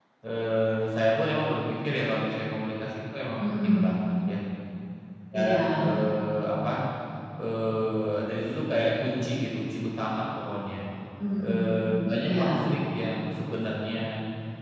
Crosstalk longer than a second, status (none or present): none